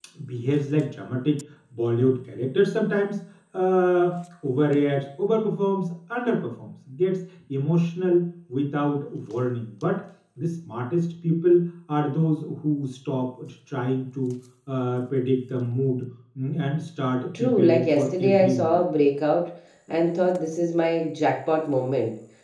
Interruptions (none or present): present